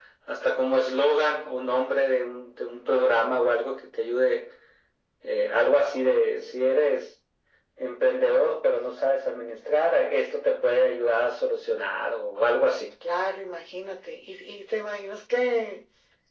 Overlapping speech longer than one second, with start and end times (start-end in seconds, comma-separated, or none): none